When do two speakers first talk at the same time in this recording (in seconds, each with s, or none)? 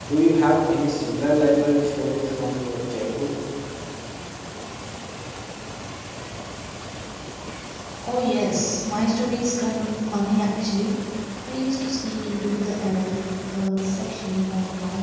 none